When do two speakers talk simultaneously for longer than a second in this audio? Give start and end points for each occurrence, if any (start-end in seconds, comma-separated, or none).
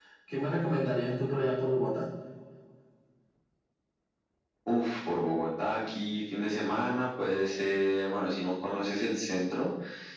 none